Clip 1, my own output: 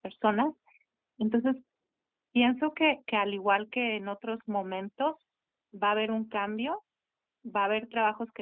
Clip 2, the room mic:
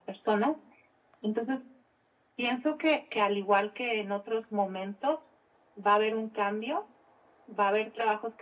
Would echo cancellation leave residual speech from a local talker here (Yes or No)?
No